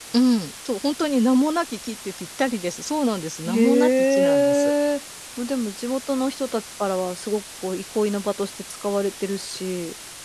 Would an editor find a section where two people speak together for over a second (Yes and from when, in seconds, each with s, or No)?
Yes, from 3.5 s